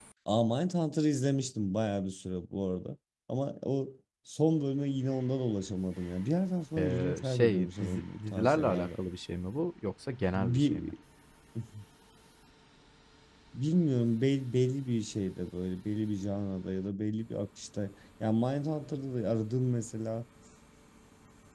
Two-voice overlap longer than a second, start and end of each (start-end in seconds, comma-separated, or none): 6.8-8.9